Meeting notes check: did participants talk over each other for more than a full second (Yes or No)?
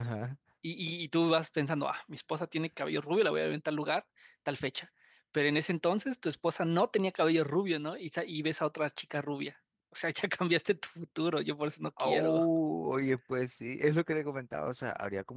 No